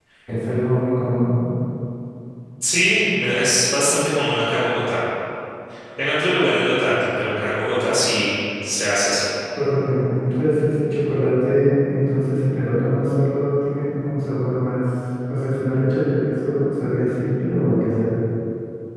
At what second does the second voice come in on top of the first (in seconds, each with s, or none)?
none